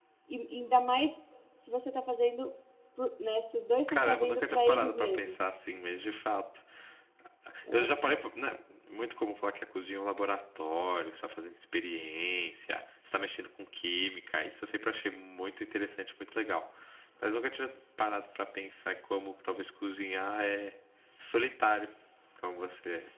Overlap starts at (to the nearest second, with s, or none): 4 s